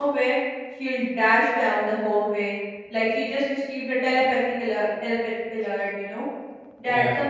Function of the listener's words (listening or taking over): listening